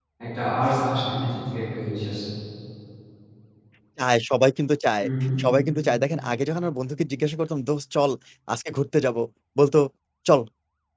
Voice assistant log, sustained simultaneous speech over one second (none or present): none